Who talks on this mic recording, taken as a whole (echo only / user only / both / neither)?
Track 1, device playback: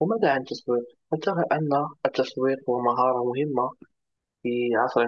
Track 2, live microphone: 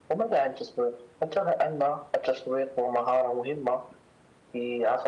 echo only